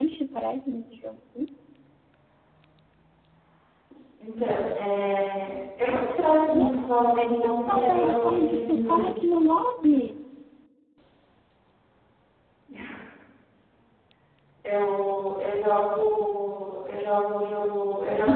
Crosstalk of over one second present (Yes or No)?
Yes